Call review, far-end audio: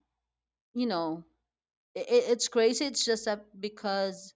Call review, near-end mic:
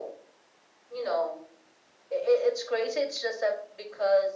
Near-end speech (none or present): none